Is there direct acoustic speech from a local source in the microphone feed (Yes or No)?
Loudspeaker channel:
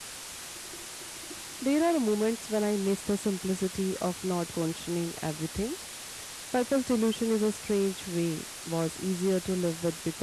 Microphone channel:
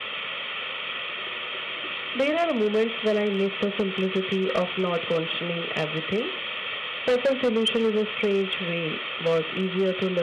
No